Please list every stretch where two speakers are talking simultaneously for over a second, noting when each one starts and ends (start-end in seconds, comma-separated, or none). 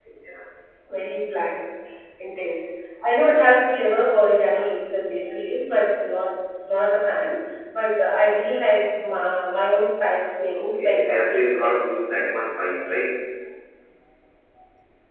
10.5-11.8